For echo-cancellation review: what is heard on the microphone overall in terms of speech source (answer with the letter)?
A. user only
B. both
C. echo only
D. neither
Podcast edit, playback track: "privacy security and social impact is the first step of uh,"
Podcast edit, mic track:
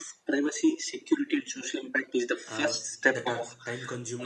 B